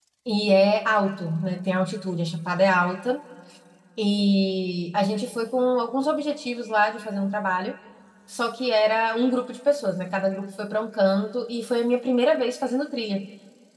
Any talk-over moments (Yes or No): No